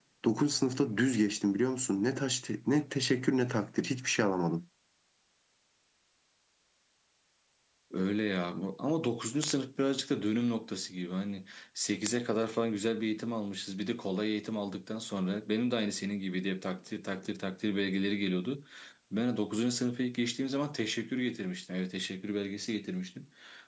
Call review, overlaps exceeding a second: none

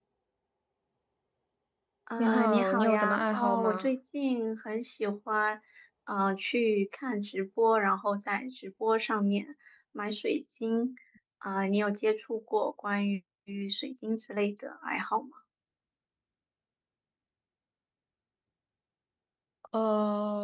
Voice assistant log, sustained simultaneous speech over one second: present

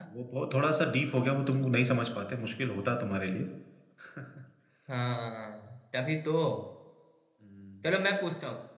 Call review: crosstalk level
none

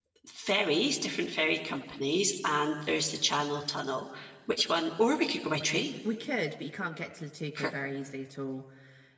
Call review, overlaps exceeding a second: none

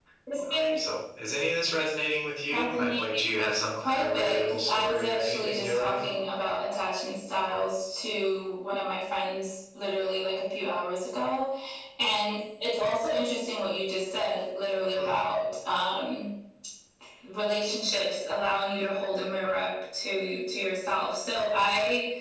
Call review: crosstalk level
present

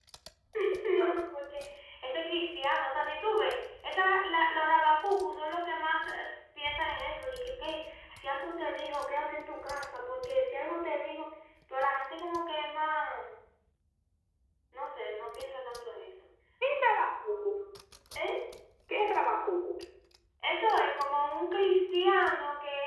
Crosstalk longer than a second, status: none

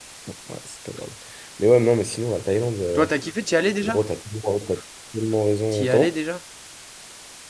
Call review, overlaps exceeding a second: none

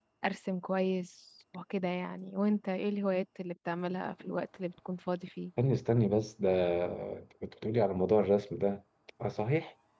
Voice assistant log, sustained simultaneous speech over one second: none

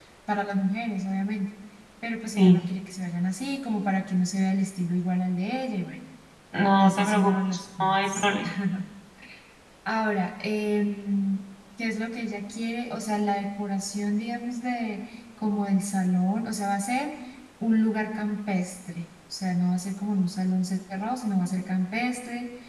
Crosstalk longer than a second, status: present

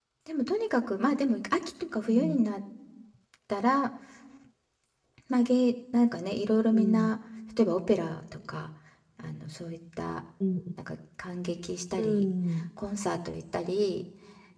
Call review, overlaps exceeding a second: none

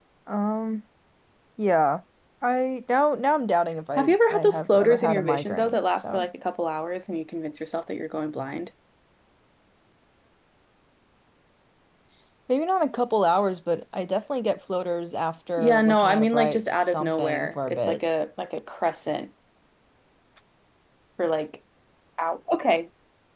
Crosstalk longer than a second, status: present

